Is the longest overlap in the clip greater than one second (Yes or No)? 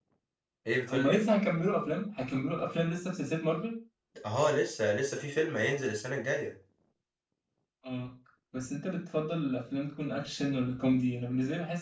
No